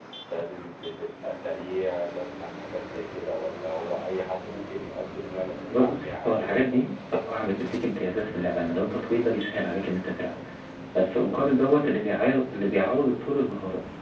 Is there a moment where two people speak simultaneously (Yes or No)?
Yes